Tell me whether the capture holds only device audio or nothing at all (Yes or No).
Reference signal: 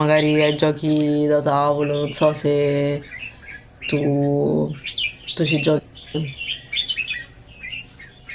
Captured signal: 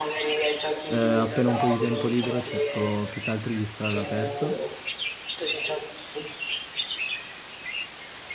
No